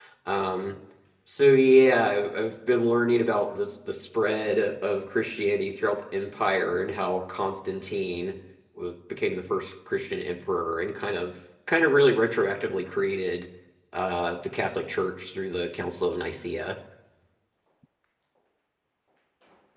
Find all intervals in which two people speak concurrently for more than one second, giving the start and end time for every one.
none

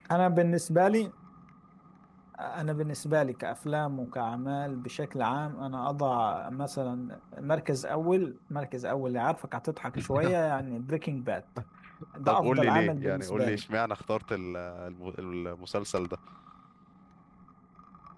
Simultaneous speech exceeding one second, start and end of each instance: 12.3-13.6

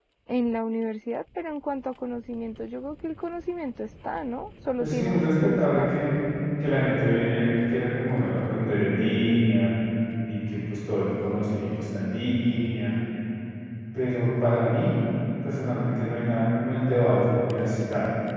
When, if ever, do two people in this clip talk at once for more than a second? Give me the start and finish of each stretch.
4.8-6.0

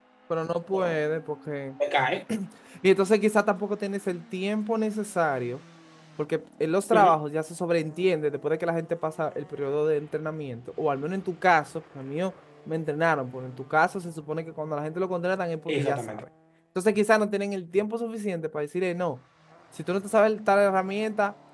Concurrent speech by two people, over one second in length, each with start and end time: none

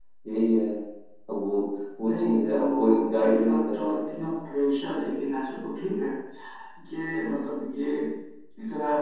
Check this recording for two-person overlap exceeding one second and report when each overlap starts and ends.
2.0-4.0

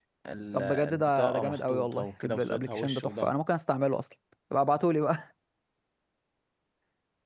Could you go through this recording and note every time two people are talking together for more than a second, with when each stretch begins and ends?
0.5-3.3

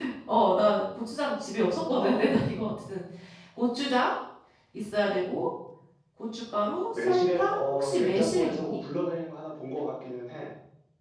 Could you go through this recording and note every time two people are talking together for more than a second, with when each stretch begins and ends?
6.9-8.8

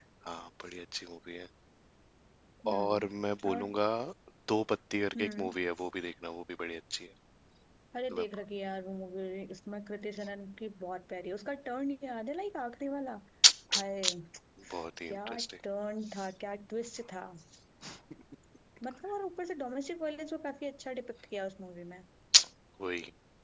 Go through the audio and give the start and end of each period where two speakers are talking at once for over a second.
none

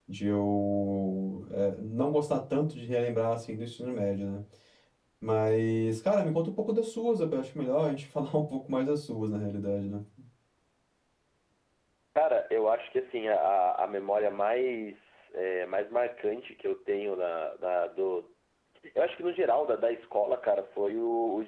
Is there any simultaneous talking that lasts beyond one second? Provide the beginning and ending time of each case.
none

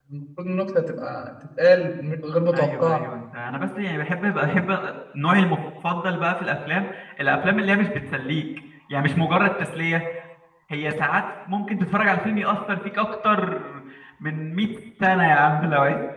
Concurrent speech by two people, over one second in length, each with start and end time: none

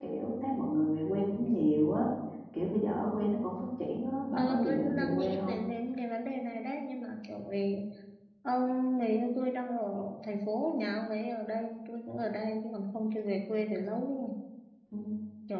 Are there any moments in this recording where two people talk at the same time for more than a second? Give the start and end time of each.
4.4-5.6

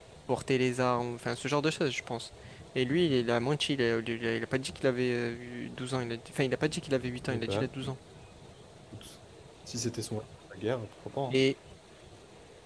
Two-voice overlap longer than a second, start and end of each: none

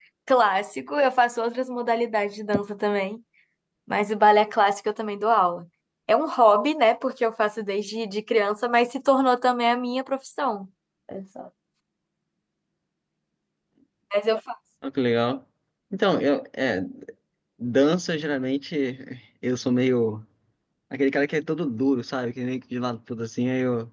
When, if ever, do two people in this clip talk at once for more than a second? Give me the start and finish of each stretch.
none

